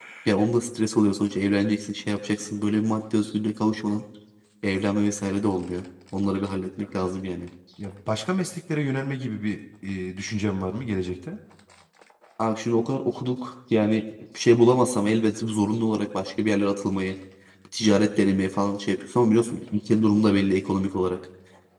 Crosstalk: none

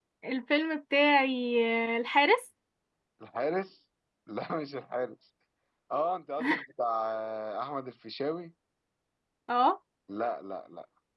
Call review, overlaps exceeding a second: none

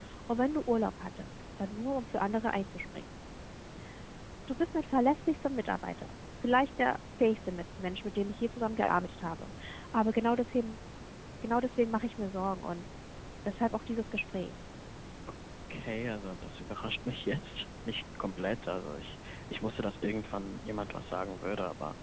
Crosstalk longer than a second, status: none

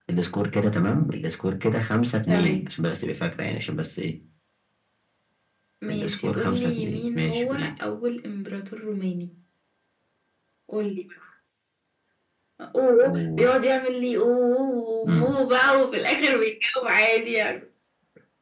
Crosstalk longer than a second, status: present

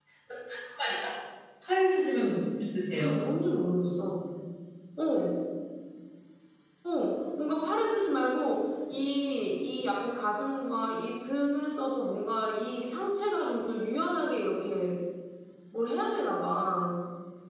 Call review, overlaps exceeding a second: none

